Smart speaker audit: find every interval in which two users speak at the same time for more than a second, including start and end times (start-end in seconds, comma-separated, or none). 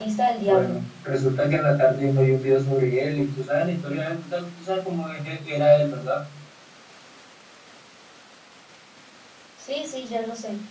none